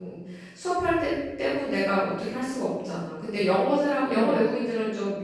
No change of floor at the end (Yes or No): Yes